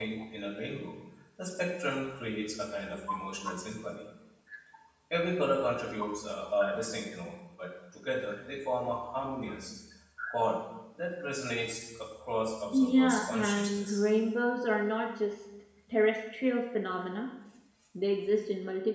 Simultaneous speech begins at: 12.7 s

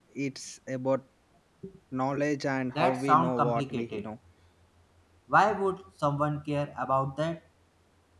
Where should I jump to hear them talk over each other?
2.8 s

